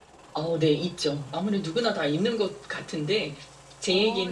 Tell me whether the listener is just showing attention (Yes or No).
Yes